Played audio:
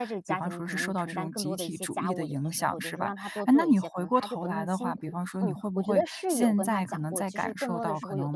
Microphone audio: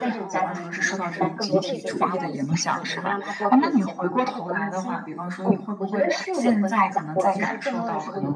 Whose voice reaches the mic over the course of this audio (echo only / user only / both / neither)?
both